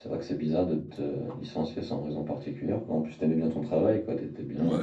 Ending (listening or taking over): taking over